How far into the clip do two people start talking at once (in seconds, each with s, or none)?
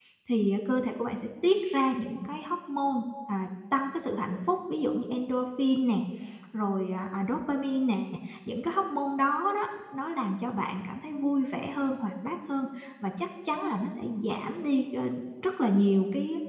none